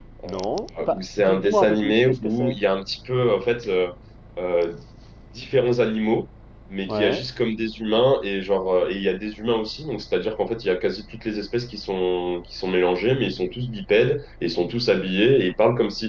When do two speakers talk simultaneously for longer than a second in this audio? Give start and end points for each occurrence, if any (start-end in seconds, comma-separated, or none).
0.9-2.6